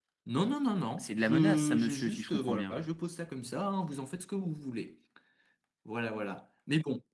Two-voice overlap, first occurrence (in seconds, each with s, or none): 1.0 s